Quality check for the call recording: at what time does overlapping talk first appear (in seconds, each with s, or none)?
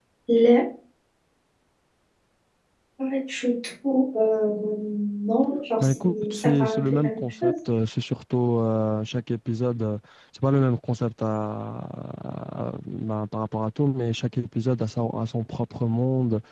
5.8 s